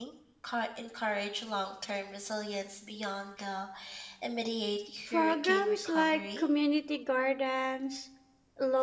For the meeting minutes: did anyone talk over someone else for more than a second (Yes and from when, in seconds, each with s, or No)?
Yes, from 5.1 s